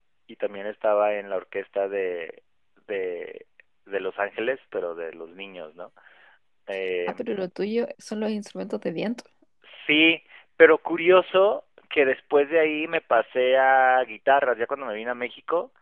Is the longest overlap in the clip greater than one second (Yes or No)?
No